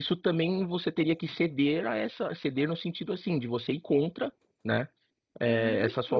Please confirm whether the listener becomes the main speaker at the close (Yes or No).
No